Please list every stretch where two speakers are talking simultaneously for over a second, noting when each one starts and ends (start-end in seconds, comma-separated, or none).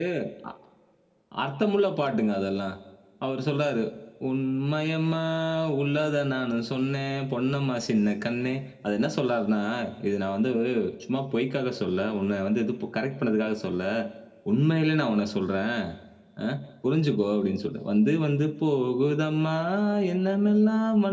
none